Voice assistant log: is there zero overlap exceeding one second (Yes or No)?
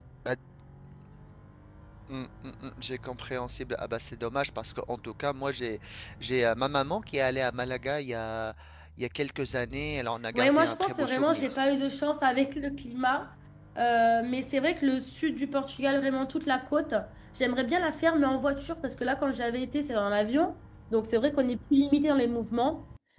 No